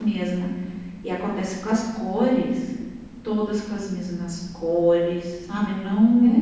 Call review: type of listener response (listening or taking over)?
taking over